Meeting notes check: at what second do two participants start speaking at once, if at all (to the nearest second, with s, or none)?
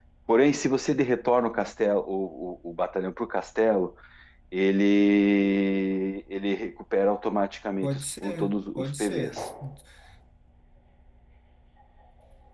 8 s